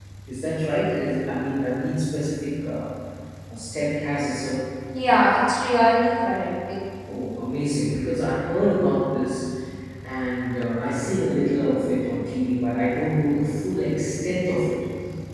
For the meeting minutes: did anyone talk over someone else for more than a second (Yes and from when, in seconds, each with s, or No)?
No